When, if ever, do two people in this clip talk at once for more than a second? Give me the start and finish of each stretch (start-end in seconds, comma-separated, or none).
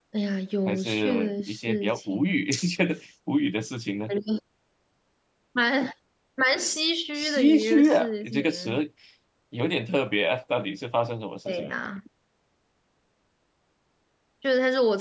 0.7-2.5, 7.1-8.8